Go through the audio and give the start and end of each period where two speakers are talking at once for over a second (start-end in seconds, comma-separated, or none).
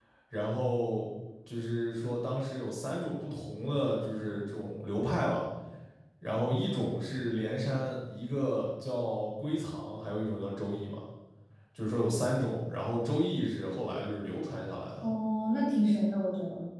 none